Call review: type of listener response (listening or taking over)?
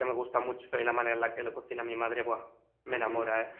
taking over